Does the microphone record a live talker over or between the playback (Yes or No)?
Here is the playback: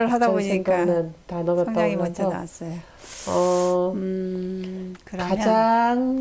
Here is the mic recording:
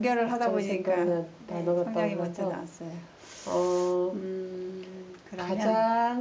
Yes